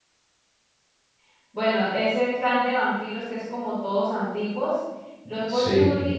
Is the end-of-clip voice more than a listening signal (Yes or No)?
No